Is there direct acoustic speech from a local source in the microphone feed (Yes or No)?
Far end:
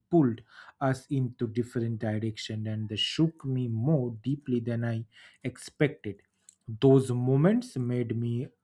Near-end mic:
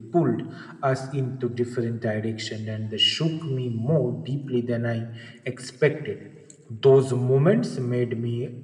No